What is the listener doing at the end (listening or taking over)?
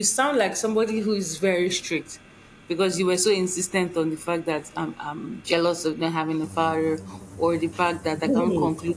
listening